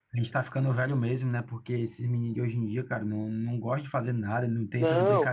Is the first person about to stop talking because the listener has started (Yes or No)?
No